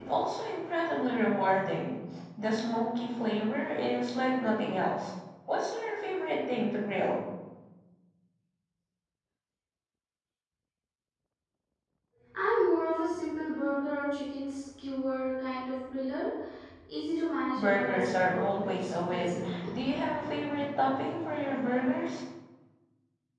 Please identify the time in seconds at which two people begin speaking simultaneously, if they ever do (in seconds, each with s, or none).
17.6 s